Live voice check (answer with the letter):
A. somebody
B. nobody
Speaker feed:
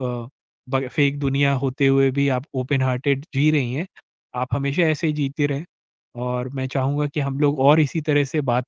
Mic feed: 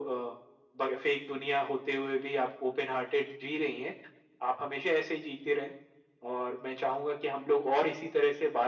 B